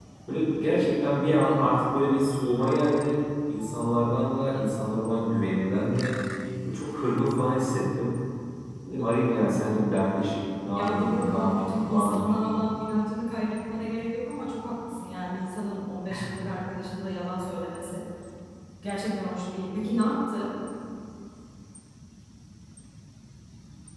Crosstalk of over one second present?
Yes, from 10.7 s

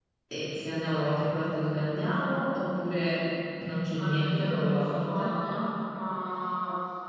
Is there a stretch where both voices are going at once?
Yes, from 4.0 s

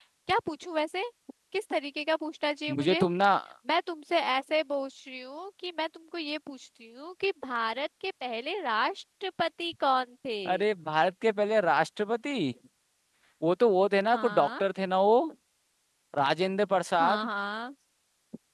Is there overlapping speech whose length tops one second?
No

